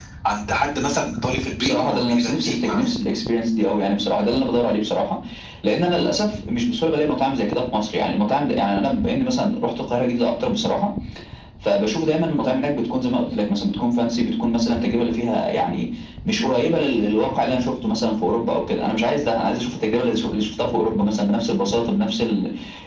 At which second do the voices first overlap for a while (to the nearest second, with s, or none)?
2 s